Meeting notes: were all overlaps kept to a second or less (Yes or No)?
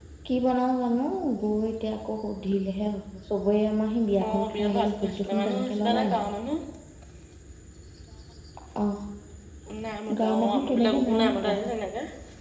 No